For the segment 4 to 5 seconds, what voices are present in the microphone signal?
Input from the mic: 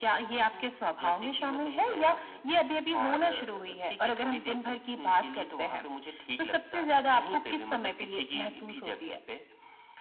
echo only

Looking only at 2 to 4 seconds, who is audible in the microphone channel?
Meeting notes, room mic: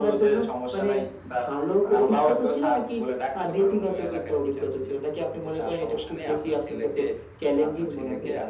echo only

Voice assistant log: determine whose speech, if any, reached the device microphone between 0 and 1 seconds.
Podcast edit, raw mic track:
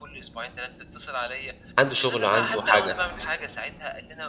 echo only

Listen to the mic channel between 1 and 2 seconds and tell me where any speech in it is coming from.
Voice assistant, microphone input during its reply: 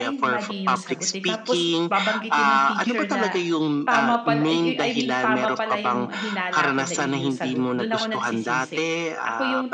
both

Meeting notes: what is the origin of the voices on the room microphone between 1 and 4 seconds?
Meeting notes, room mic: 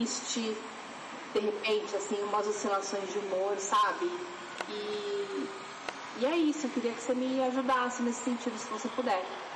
echo only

